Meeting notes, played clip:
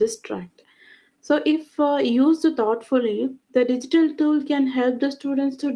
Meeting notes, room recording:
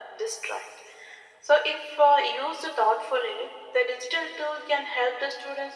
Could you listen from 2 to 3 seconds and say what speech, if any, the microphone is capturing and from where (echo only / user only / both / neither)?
echo only